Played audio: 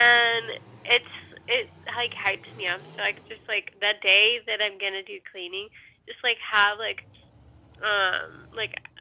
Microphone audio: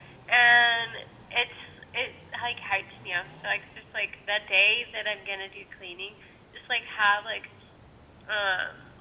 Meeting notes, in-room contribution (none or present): none